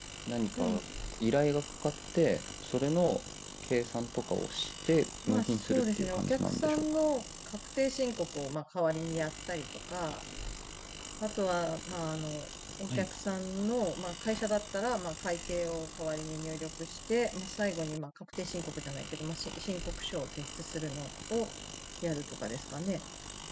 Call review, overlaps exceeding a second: present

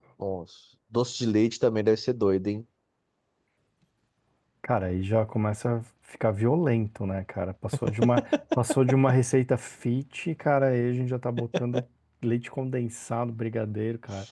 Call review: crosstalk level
none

